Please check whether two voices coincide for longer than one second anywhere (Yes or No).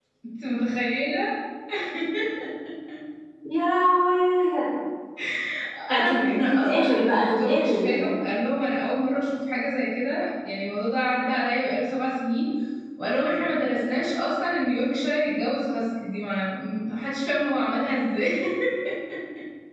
Yes